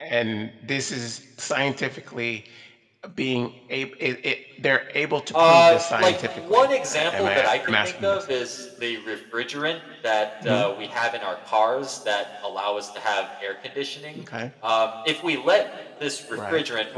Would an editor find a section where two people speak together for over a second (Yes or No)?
Yes